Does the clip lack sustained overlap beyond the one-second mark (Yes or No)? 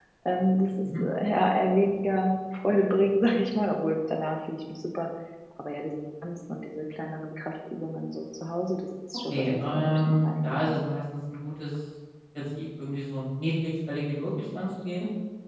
No